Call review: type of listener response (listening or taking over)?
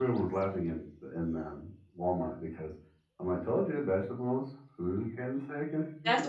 taking over